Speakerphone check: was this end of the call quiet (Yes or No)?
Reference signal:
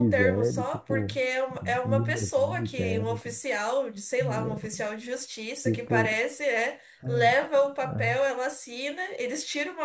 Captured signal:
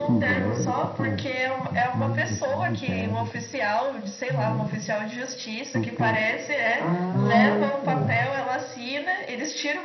No